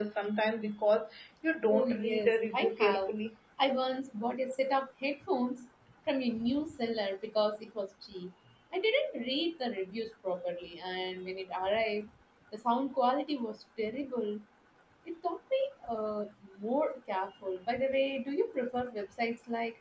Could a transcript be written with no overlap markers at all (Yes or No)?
No